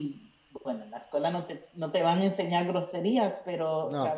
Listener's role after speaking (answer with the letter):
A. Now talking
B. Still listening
B